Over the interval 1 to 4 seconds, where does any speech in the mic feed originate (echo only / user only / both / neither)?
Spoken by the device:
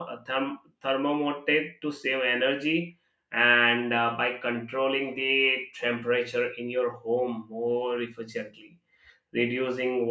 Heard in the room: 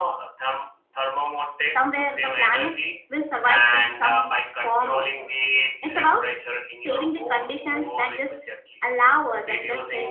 both